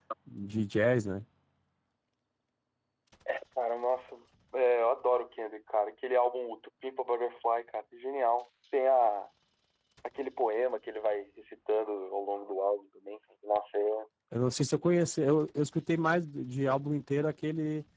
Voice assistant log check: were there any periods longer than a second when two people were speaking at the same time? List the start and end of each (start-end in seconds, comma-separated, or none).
none